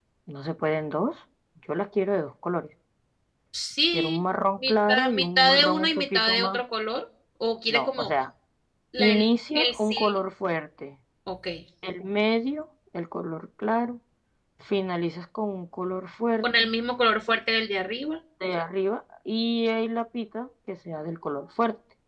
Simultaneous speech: Yes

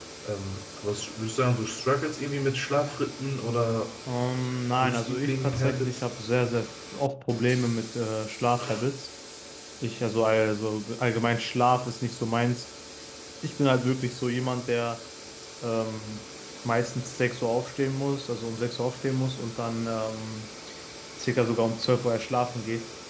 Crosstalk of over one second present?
Yes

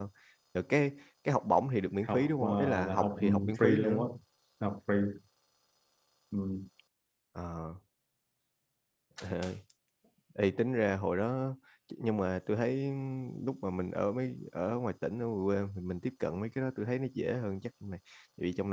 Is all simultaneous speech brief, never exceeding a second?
No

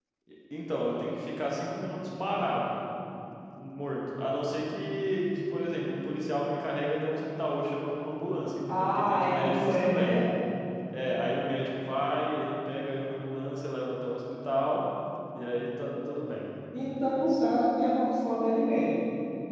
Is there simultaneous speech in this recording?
Yes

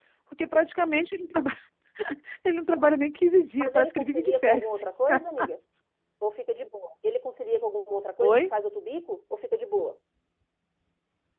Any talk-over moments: Yes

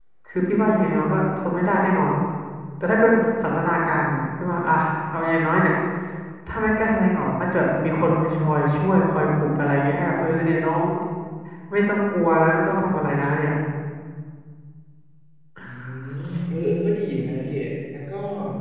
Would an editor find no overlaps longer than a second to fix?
Yes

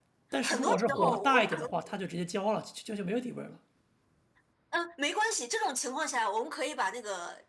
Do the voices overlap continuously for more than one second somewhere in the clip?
Yes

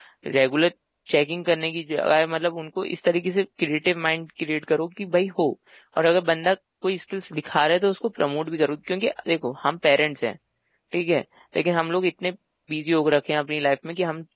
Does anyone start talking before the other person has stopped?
No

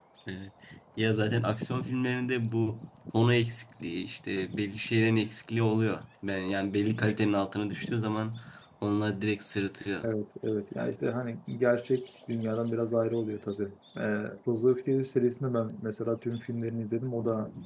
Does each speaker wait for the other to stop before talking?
Yes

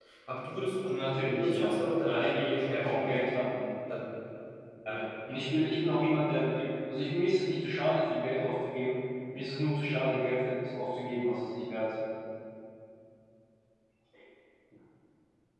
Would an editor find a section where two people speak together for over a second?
Yes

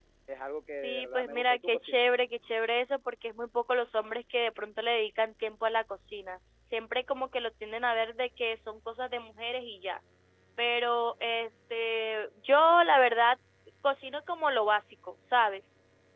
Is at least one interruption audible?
Yes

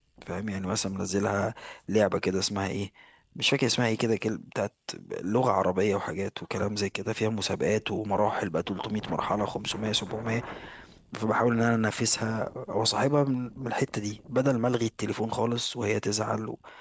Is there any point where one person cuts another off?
No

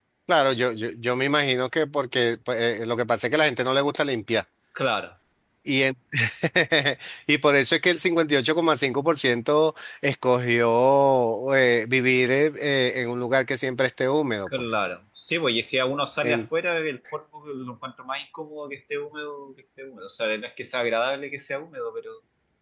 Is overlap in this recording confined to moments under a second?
Yes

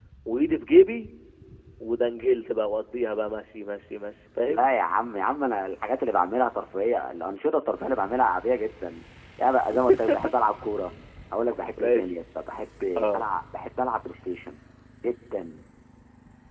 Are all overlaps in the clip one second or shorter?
Yes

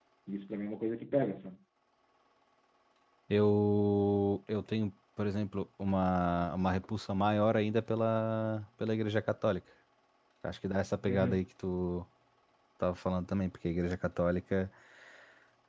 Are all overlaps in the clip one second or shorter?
Yes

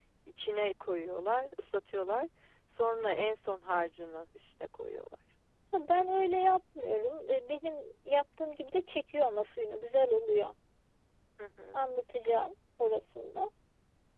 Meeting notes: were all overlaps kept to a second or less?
Yes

